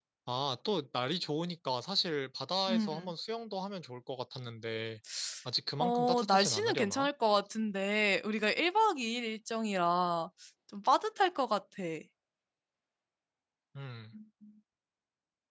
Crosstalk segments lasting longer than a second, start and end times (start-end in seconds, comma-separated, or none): 5.8-7.1